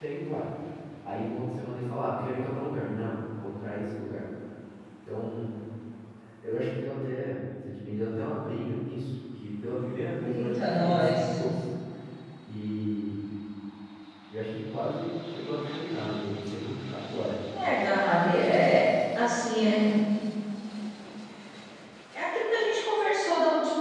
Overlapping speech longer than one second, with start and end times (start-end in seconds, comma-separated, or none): 10.2-11.4